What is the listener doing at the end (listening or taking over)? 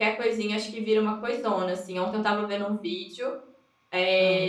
listening